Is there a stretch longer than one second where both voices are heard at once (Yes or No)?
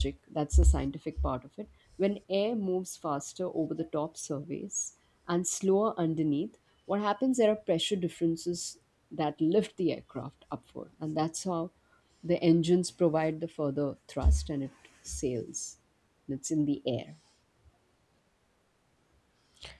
No